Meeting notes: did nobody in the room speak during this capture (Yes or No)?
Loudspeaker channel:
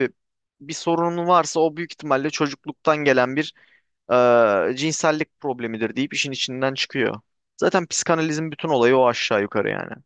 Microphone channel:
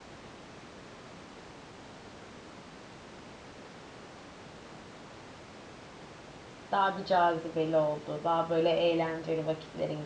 No